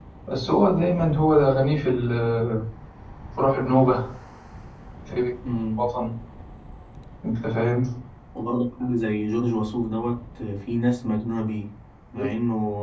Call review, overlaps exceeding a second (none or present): none